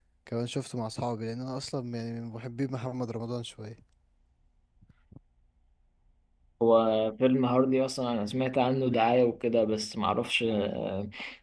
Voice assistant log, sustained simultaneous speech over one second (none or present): none